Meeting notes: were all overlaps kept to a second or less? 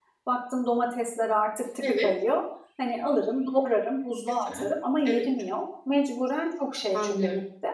Yes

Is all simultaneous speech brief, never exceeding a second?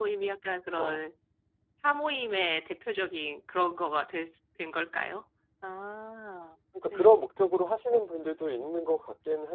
Yes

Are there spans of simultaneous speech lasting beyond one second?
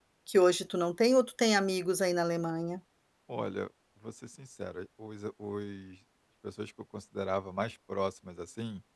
No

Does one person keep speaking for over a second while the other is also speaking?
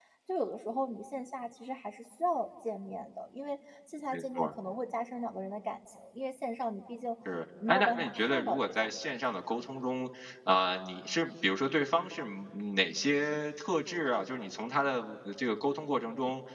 Yes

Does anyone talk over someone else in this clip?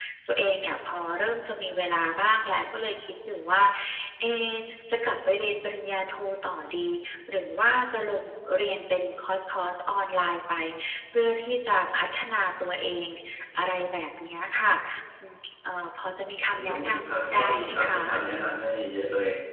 Yes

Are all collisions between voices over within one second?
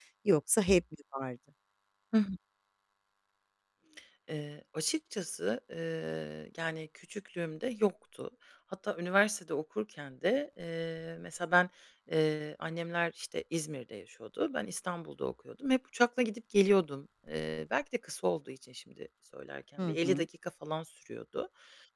Yes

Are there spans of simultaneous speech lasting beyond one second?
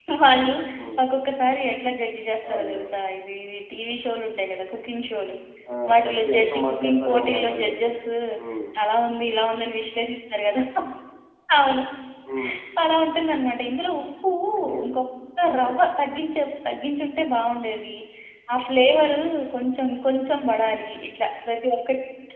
Yes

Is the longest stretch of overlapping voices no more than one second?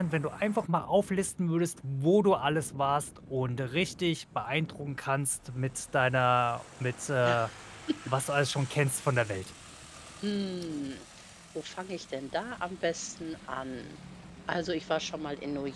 Yes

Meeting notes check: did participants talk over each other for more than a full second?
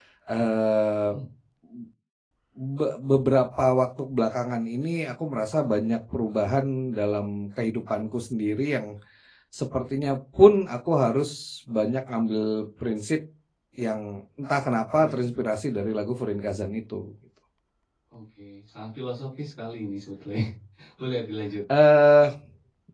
No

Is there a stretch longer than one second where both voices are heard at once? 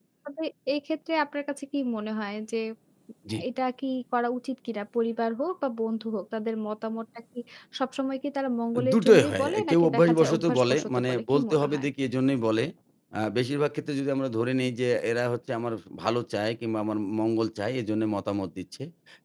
Yes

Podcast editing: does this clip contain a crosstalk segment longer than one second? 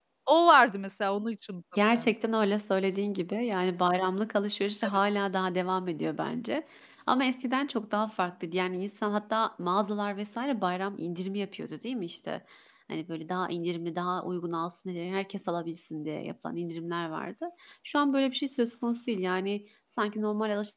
No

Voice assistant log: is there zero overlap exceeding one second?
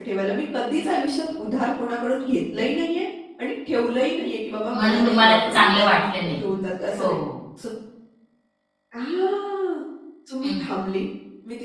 No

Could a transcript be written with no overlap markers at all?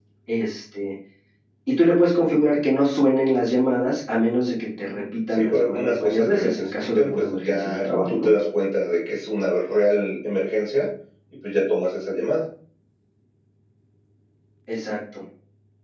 No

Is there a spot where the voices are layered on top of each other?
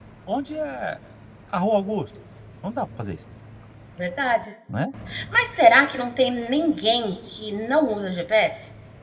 No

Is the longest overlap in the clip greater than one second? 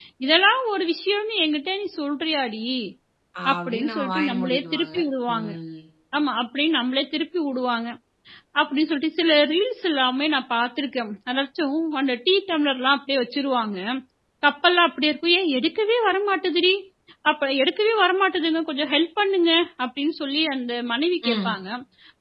Yes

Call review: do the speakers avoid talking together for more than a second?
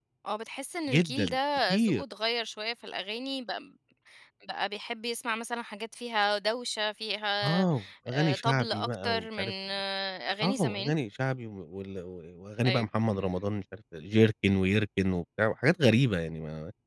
No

